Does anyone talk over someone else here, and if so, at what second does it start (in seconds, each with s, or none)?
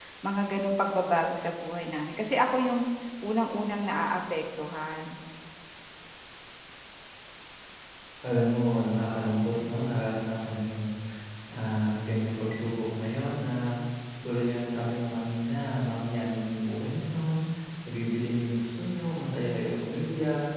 none